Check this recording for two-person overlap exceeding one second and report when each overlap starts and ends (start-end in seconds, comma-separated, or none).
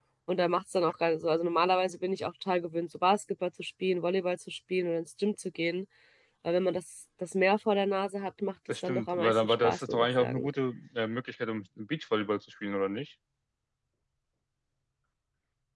8.8-10.5